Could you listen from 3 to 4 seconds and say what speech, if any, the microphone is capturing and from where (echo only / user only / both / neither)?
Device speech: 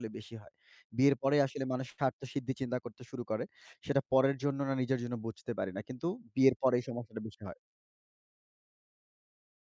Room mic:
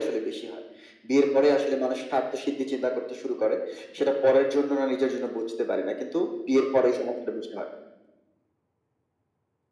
echo only